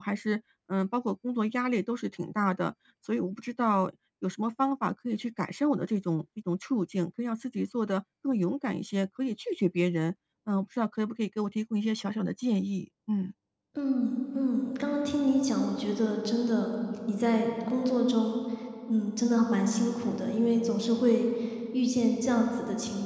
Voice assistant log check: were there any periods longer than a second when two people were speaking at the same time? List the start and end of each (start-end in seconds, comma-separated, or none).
none